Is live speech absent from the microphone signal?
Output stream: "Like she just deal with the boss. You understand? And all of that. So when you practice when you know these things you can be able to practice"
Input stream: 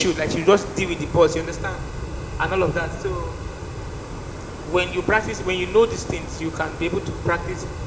Yes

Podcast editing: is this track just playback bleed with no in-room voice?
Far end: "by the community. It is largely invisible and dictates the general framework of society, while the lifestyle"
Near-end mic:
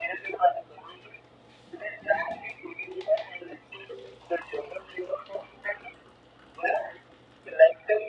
Yes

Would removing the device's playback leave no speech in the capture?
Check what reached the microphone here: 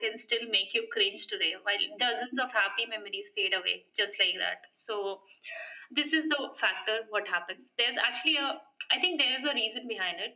Yes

